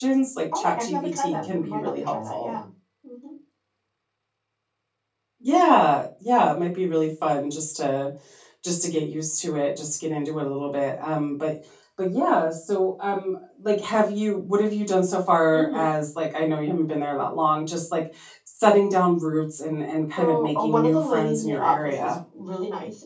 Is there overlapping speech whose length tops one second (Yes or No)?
Yes